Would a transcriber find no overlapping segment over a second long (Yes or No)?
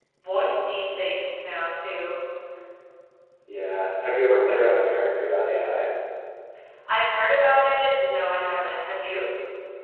Yes